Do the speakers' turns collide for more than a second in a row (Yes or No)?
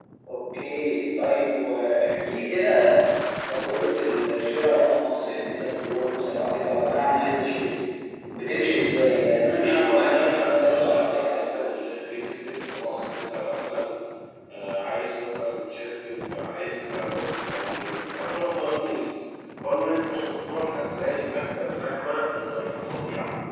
Yes